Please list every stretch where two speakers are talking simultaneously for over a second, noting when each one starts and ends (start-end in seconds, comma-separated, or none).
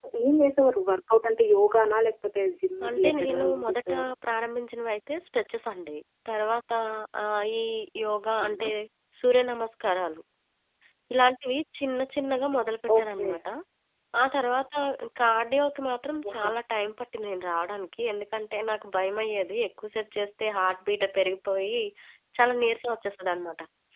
2.8-4.1